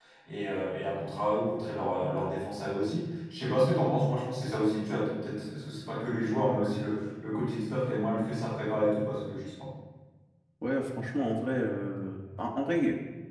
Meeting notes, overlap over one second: none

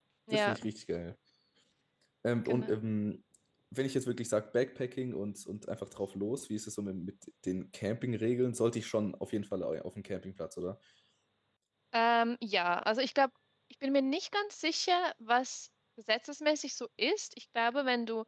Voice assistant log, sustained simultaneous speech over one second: none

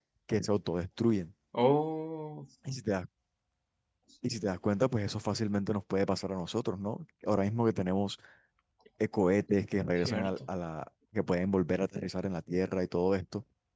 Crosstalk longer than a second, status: none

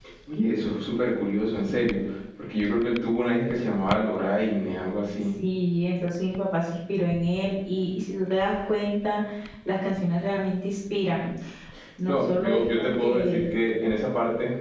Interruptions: present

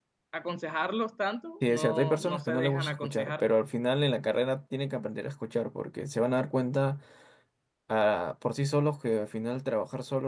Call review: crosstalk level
present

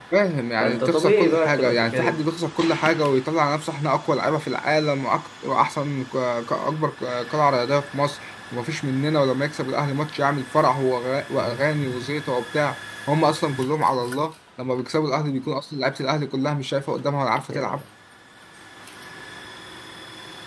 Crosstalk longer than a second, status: present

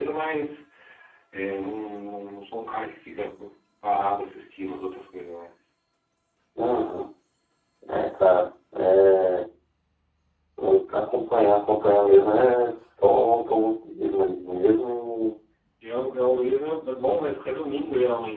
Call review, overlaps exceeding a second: none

